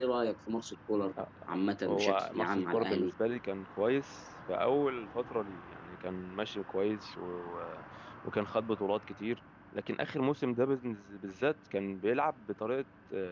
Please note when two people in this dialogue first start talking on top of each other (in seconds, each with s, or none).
1.9 s